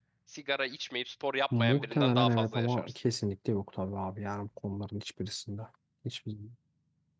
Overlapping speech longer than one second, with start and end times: 1.6-2.9

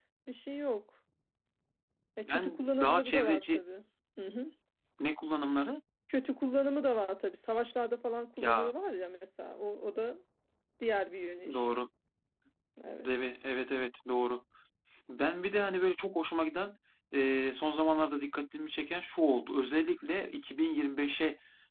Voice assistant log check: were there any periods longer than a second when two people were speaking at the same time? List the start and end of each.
2.2-3.6

